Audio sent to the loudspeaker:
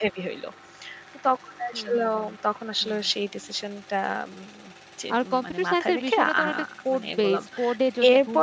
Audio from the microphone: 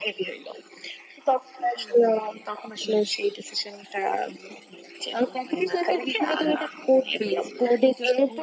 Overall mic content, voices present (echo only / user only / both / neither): echo only